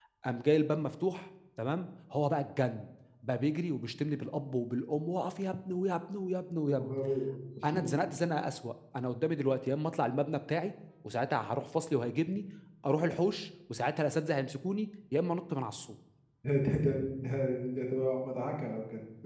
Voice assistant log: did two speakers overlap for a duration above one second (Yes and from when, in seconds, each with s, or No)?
No